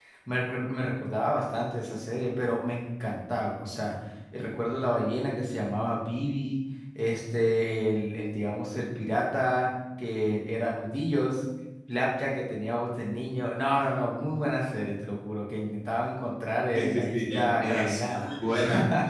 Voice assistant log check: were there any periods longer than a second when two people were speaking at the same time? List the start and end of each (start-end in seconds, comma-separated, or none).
16.7-18.3